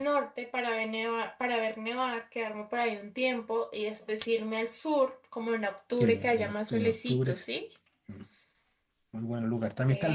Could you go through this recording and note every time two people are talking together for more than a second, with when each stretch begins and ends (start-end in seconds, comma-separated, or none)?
6.0-7.4